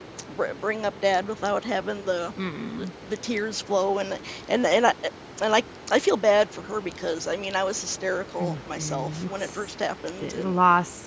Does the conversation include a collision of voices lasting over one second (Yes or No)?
Yes